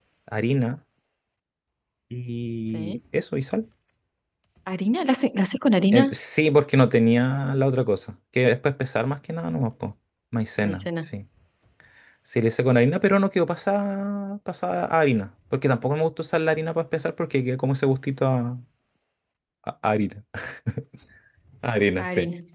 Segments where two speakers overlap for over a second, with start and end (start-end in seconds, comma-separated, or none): none